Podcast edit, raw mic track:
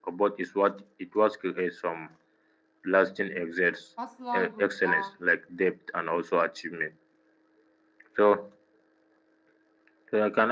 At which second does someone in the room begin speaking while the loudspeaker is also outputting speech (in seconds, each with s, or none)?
4.0 s